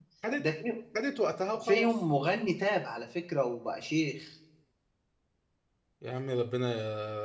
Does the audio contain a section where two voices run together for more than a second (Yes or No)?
No